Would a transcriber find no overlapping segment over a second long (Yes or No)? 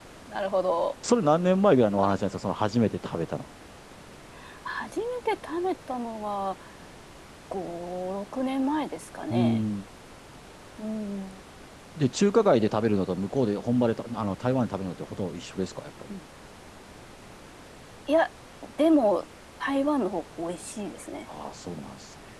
Yes